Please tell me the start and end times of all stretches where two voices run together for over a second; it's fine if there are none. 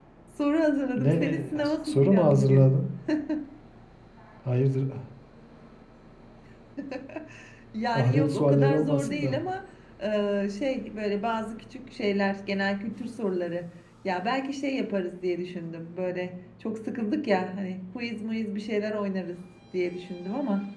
1.0-2.7, 7.9-9.4

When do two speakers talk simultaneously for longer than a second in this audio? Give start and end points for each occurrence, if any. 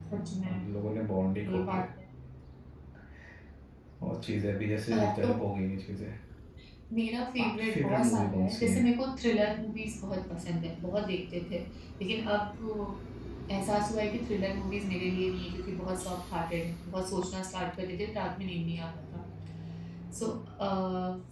7.4-8.8

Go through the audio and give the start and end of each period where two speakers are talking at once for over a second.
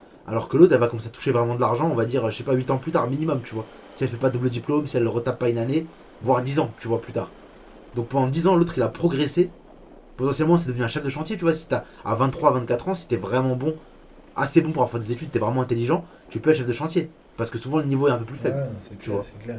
none

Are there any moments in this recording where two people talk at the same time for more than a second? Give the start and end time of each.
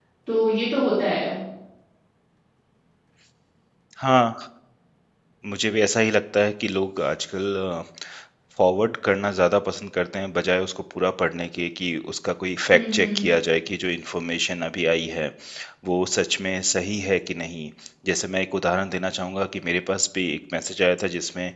none

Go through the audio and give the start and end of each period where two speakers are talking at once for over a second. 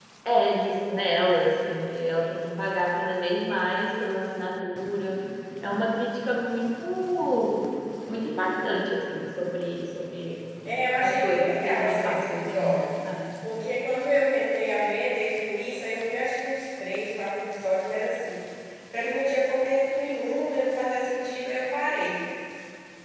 11.0-12.8

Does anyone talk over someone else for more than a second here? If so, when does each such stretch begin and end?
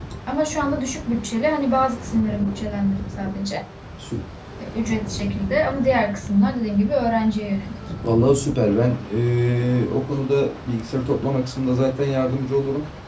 none

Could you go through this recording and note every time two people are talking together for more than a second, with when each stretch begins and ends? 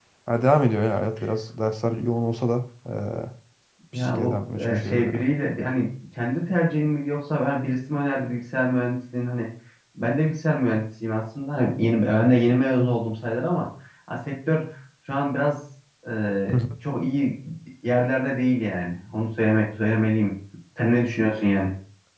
3.9-5.2

